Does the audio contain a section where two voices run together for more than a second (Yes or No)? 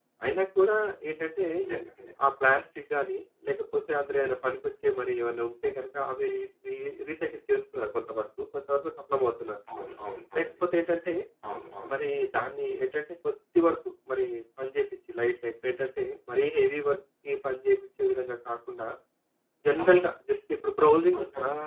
No